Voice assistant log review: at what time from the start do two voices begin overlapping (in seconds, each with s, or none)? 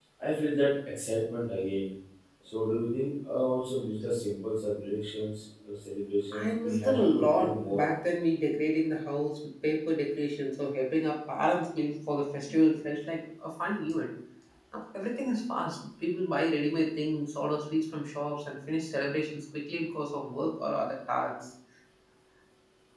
6.3 s